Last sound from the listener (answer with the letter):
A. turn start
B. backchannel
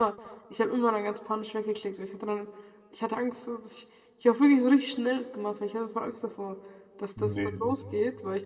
B